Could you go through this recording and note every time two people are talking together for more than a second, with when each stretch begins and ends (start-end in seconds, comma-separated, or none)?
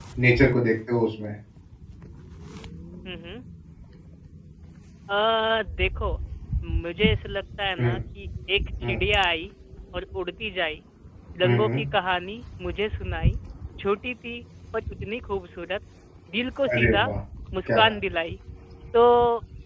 none